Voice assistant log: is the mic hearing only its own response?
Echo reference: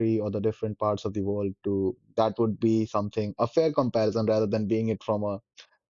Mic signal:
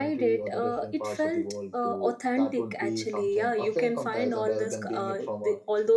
No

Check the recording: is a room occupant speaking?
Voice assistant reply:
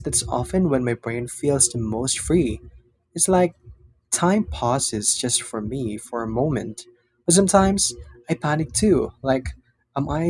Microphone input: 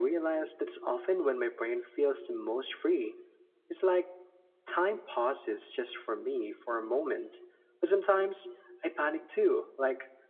No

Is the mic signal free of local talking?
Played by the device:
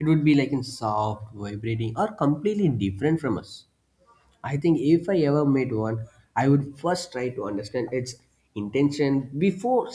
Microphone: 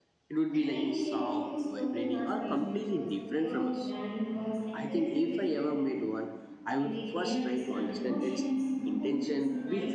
No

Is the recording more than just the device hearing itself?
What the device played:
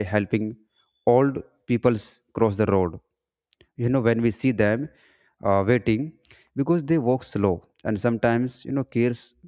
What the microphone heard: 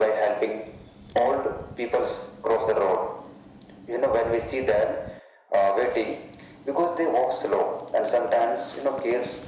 No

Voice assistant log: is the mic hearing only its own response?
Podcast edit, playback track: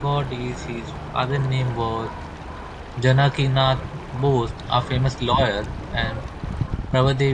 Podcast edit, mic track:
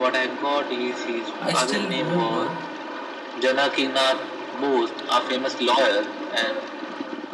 No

